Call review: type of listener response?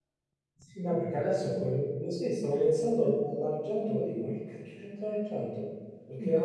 listening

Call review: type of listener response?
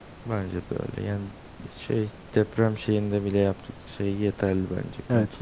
taking over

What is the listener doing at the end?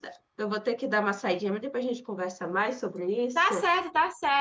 taking over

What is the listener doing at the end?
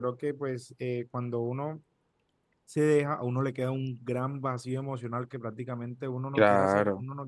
listening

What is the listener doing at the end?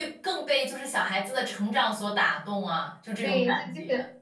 taking over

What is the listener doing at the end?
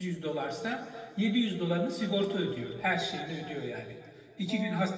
listening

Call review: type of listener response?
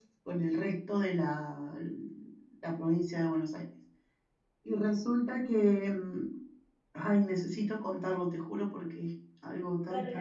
taking over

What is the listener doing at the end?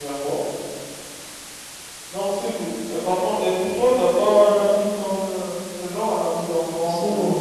taking over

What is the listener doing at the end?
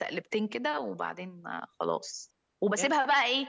listening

